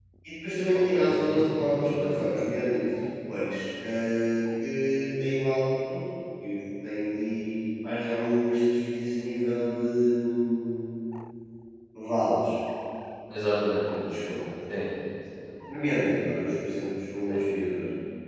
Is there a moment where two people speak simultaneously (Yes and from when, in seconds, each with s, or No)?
Yes, from 0.9 s